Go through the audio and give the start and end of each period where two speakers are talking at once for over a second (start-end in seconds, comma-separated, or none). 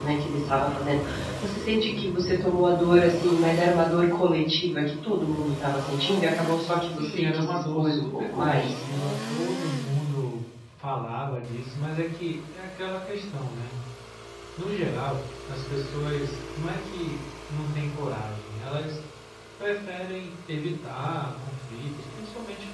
6.7-8.8